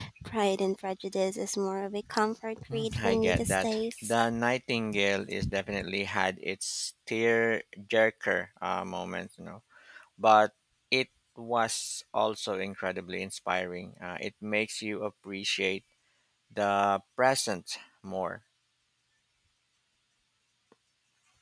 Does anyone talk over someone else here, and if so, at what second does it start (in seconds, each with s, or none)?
2.7 s